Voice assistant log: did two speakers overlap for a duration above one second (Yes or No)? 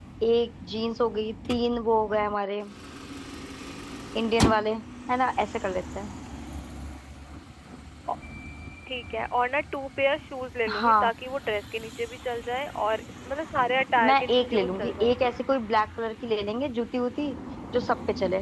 Yes